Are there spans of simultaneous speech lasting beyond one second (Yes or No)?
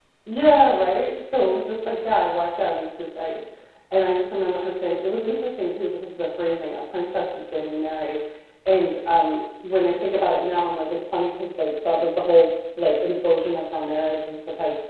No